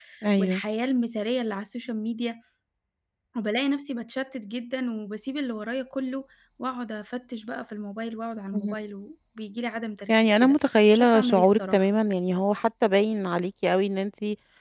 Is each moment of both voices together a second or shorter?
No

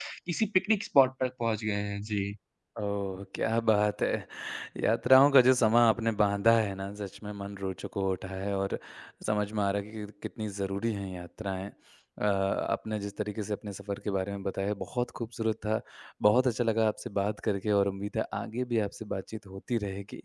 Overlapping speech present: No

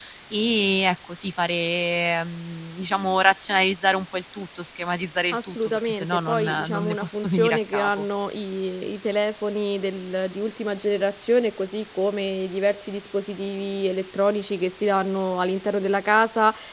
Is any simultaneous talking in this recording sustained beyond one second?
Yes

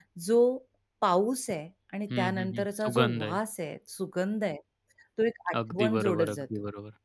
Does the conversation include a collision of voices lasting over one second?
Yes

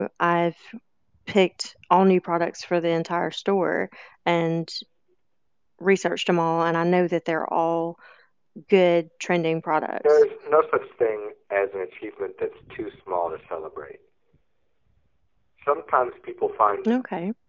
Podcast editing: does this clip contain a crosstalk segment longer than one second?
No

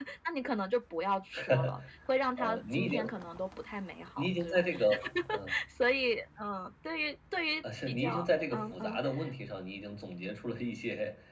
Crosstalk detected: Yes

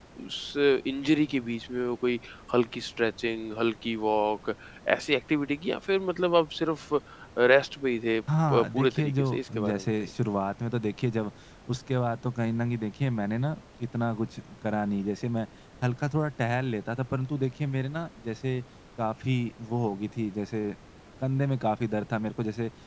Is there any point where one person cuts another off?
Yes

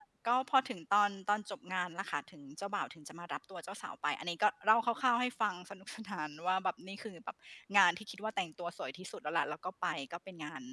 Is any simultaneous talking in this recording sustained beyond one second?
No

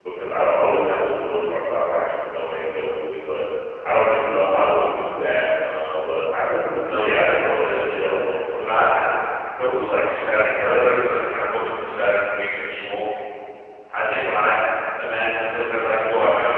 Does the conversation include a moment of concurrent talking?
Yes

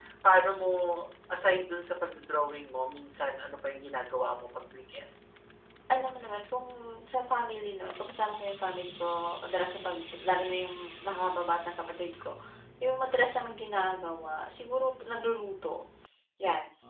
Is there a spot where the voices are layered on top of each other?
No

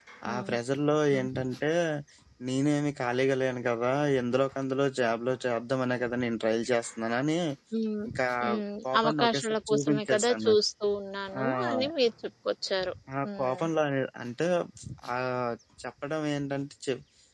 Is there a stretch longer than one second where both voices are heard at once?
Yes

